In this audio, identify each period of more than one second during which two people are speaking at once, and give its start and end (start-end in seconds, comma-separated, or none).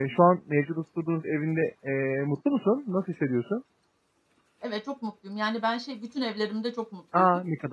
none